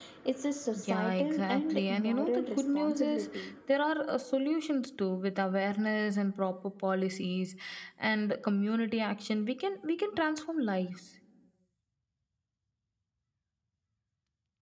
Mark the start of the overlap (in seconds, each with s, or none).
0.8 s